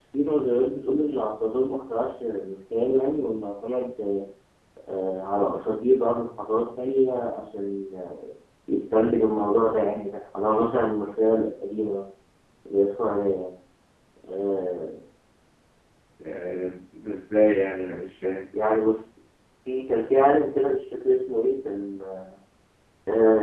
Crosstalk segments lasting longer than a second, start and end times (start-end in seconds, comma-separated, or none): none